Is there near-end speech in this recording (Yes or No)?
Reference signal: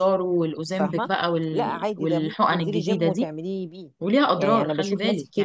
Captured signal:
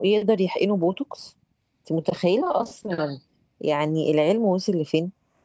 Yes